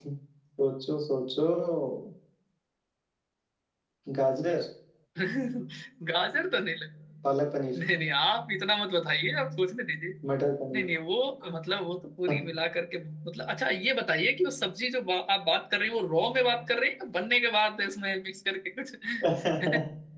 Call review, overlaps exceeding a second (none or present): none